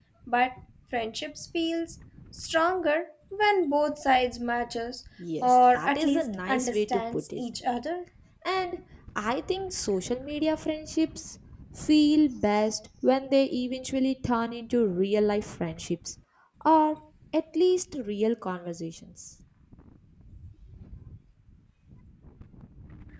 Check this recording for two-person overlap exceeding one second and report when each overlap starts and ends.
5.4-7.4

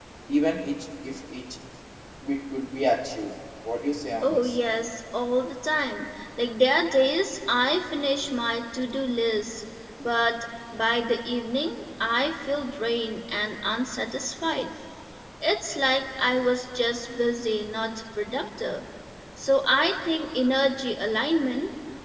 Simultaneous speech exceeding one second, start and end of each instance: none

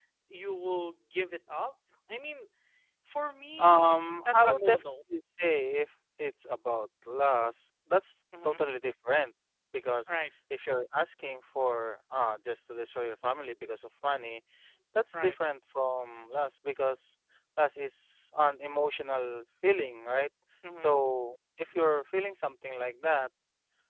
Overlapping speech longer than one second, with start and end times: 3.6-4.8

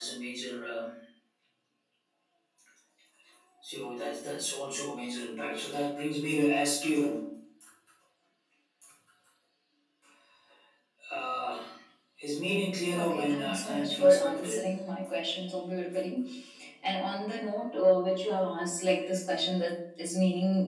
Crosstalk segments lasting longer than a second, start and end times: 13.0-14.7

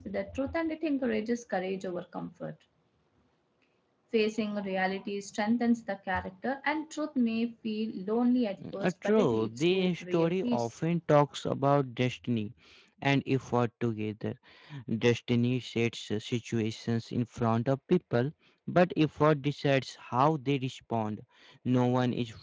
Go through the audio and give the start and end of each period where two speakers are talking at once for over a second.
8.8-10.7

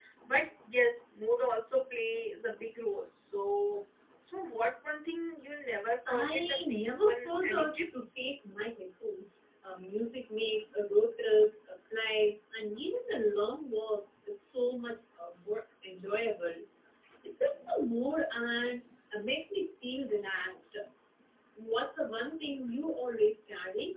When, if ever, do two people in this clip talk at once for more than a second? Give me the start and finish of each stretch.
6.1-7.9

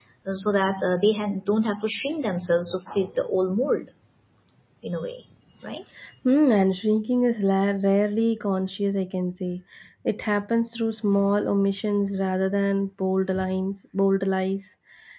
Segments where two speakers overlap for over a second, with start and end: none

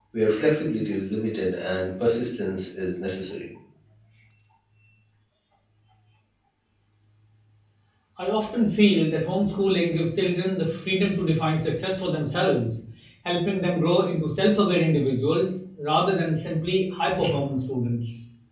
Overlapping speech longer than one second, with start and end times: none

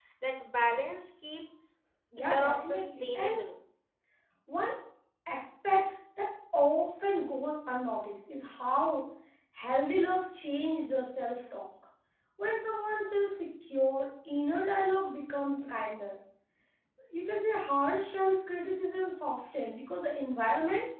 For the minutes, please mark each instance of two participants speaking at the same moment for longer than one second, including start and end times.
2.2-3.4

